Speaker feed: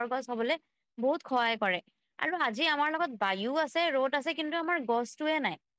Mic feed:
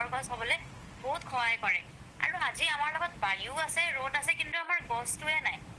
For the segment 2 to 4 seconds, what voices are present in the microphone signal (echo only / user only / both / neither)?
echo only